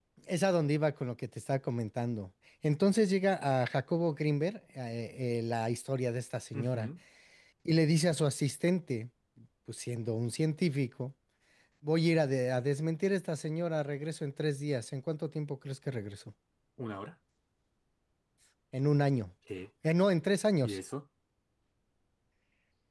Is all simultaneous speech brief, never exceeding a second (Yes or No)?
Yes